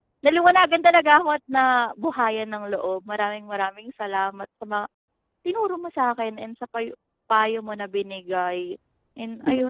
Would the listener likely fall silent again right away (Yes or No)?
No